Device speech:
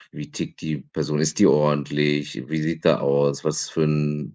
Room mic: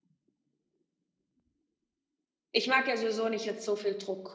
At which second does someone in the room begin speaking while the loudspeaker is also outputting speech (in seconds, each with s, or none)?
2.5 s